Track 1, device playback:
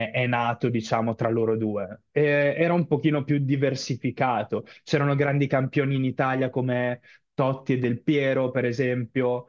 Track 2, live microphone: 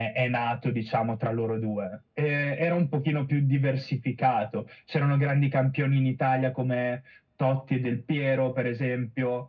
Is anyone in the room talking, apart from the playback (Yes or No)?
No